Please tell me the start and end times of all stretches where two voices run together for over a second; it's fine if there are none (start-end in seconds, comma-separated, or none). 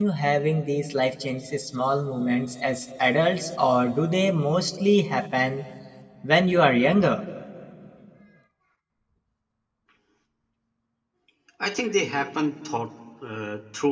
none